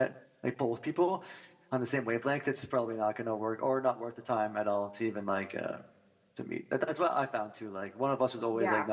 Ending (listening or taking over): listening